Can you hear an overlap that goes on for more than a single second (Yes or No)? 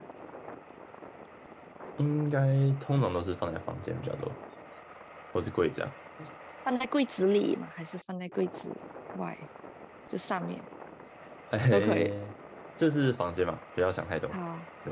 No